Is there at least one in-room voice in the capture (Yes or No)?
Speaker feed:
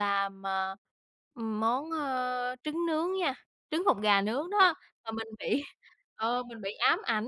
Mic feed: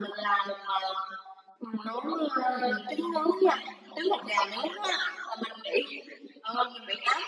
Yes